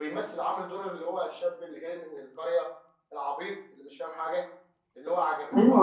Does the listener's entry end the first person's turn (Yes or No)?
Yes